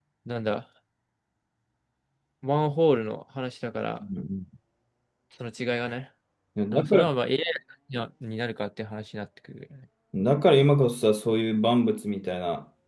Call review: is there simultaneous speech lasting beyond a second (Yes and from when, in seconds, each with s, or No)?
No